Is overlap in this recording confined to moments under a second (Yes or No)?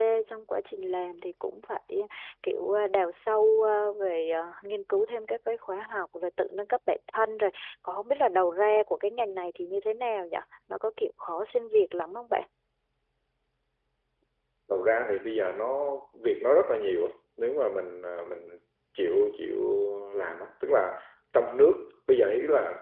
Yes